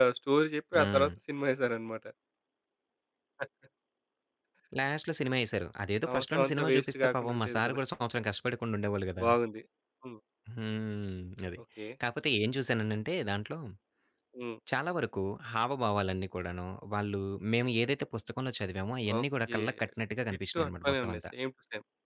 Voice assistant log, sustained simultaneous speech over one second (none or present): present